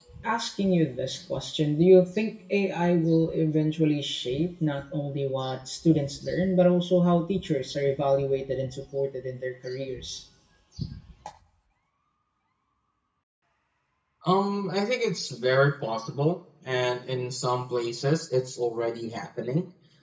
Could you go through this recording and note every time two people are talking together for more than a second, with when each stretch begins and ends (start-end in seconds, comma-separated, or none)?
none